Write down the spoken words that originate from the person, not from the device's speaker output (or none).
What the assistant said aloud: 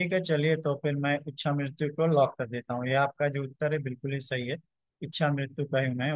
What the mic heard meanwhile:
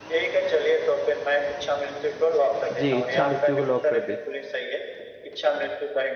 जी इच्छा मृत्यु को लॉक कर दे